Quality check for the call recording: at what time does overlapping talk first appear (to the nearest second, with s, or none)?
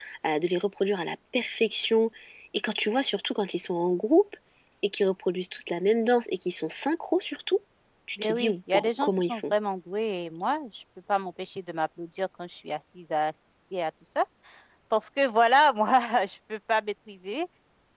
8 s